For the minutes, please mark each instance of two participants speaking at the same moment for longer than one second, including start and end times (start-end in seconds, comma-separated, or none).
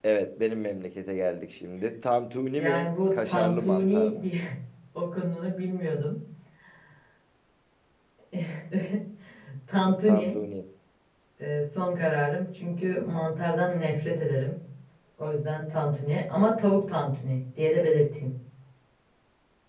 2.6-4.3